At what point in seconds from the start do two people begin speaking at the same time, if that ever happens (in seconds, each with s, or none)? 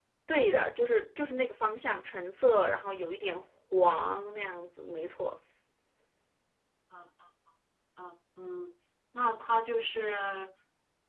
none